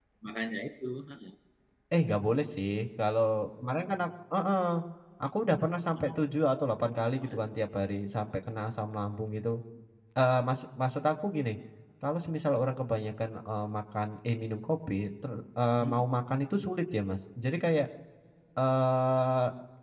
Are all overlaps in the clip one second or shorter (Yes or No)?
Yes